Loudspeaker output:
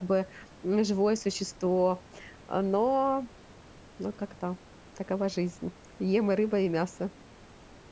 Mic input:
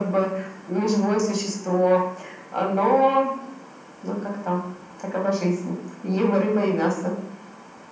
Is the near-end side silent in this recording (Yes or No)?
Yes